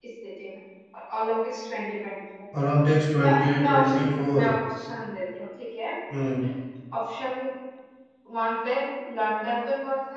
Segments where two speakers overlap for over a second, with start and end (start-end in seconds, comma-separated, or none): 3.2-4.5